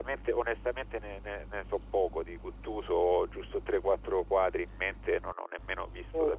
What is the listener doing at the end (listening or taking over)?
listening